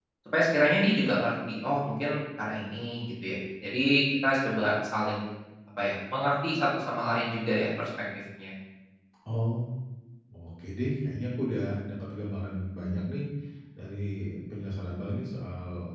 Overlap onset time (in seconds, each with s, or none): none